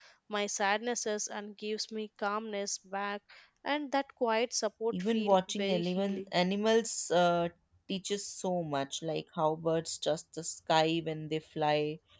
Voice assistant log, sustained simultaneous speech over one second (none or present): present